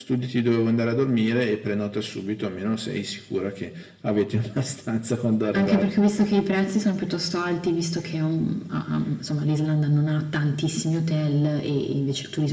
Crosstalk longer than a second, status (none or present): none